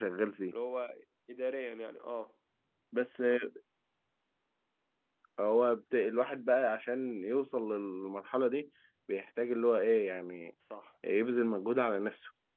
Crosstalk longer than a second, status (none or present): none